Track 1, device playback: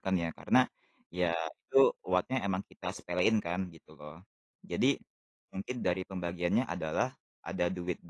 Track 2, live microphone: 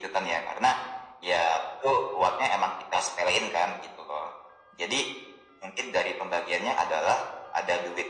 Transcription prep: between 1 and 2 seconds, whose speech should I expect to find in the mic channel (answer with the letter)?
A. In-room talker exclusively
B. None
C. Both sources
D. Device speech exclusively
D